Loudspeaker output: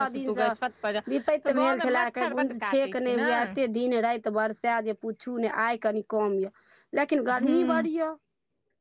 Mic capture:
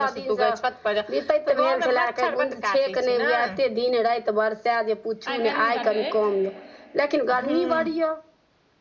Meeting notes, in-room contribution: present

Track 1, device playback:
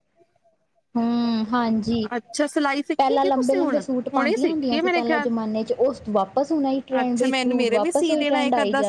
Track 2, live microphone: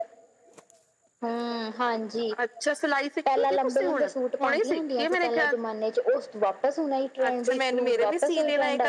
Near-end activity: none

